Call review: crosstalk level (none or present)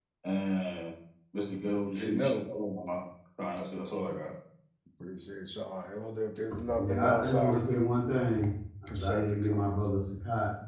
present